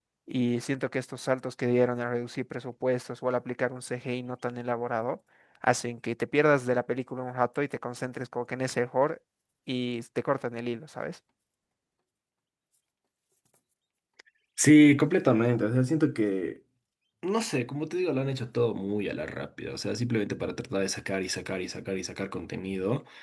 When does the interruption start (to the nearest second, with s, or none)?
none